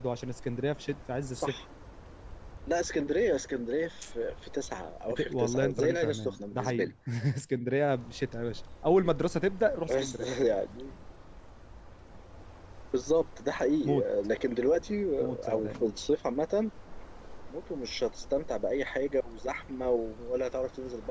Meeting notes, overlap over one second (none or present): present